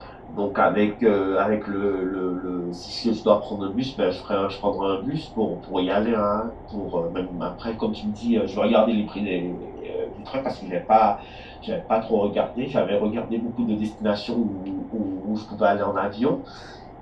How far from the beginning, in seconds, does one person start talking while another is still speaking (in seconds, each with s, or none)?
none